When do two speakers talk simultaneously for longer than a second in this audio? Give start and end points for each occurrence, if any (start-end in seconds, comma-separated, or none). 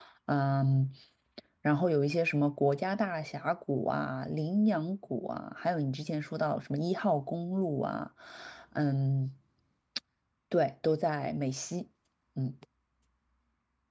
none